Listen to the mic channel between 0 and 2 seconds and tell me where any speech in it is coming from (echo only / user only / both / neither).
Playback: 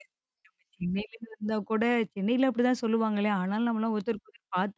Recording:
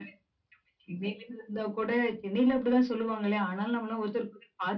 echo only